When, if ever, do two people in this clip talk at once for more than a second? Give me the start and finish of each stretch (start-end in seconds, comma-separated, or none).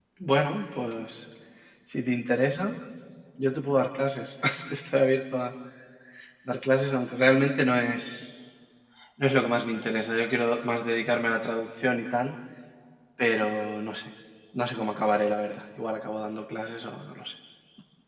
none